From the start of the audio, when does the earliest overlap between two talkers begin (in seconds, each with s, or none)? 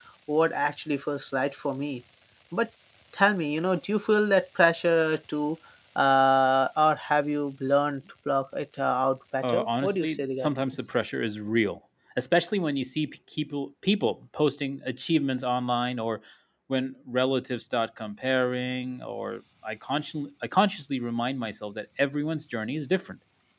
9.4 s